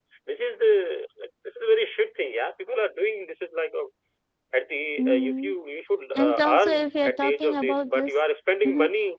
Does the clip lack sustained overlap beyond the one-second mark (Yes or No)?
No